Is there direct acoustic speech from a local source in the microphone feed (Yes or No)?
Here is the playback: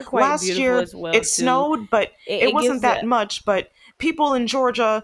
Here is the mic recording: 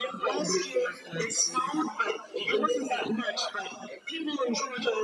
No